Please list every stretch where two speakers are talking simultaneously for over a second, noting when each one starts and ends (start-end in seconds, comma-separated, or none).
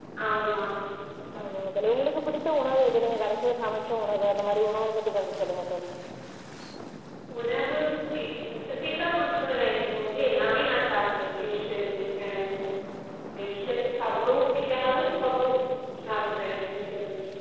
none